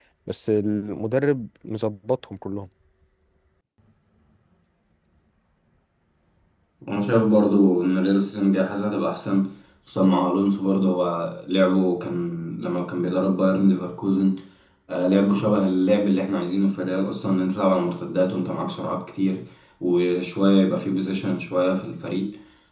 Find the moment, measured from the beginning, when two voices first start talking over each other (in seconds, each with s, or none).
none